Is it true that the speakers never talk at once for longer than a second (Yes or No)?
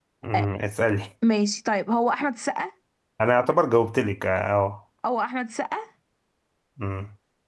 Yes